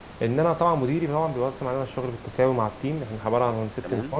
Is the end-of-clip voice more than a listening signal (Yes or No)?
No